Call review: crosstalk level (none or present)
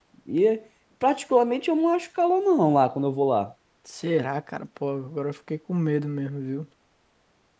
none